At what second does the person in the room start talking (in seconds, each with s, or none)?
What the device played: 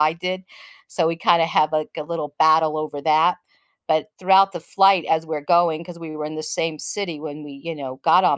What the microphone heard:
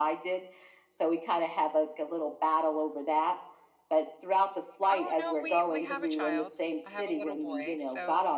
4.9 s